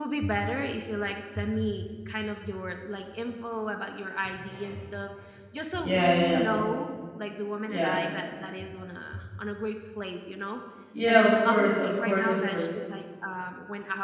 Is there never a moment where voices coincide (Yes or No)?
No